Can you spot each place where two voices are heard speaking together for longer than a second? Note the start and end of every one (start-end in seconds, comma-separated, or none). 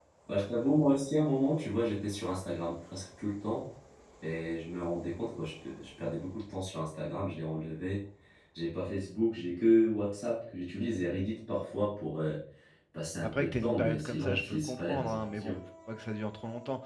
13.2-15.6